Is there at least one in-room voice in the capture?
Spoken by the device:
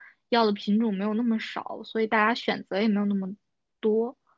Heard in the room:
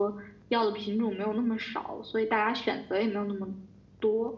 No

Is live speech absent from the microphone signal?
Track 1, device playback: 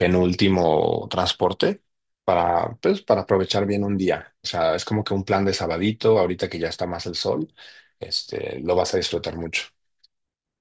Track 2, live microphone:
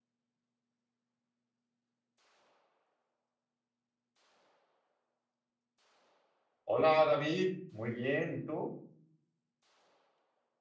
No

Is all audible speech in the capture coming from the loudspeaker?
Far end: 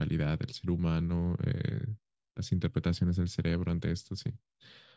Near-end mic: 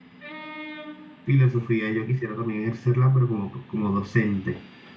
No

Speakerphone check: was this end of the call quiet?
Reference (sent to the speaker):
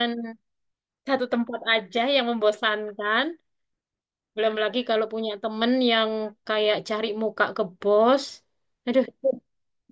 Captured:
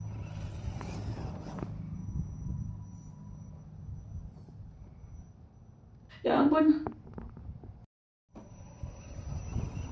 No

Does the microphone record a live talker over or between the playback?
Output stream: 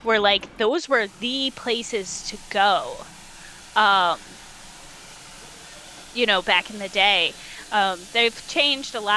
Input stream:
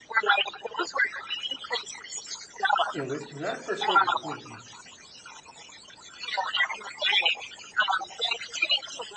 Yes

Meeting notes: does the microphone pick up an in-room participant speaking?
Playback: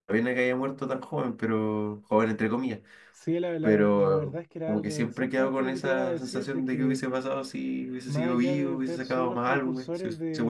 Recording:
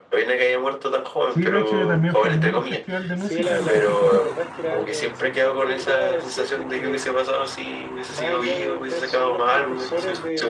Yes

